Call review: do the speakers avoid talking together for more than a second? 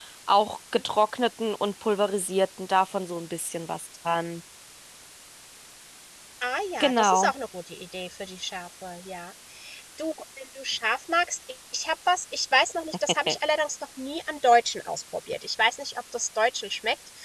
Yes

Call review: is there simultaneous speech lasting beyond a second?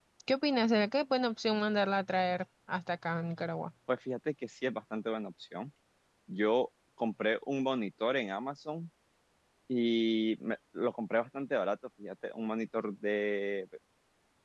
No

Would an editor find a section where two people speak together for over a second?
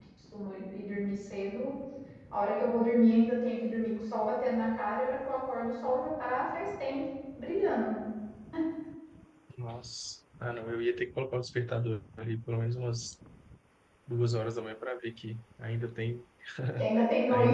No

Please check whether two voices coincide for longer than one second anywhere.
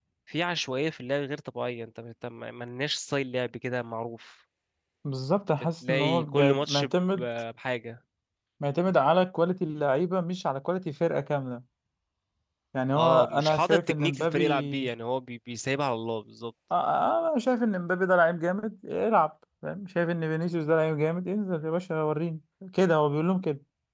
Yes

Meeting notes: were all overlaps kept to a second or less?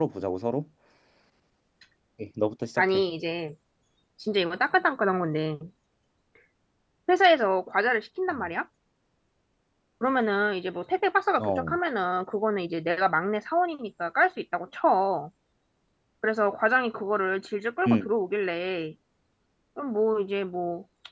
Yes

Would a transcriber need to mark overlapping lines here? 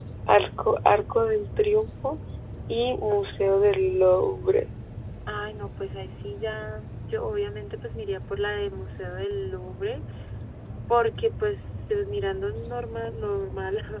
No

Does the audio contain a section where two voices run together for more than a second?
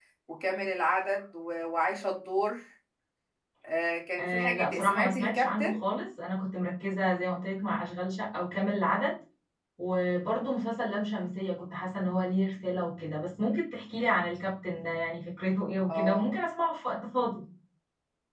Yes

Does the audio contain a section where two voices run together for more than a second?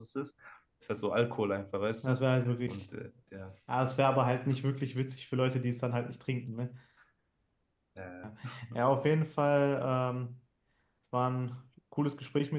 No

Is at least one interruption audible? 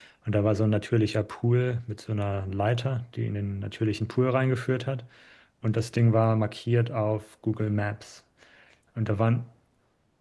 No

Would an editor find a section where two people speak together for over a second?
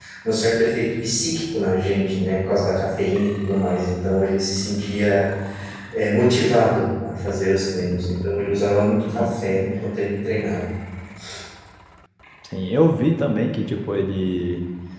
No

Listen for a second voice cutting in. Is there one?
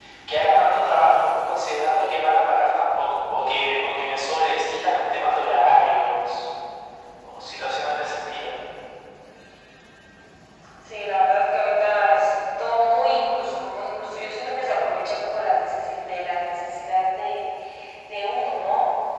No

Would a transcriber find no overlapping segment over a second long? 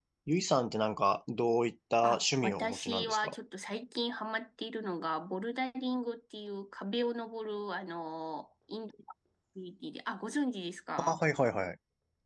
No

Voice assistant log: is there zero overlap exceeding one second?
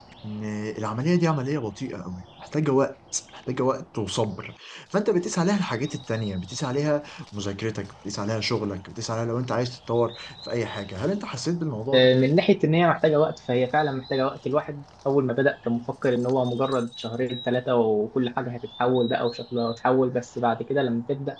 Yes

